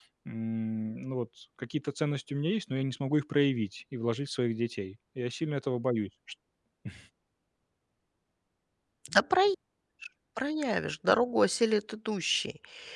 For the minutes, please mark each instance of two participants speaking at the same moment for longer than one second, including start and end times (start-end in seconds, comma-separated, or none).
none